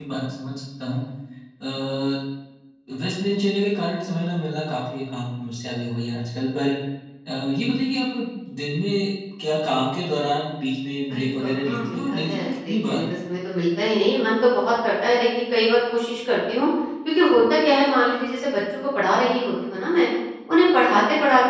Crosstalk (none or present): present